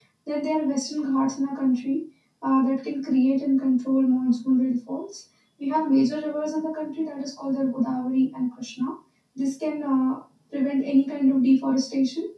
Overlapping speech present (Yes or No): No